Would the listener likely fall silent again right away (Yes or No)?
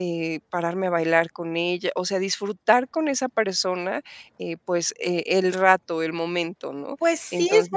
No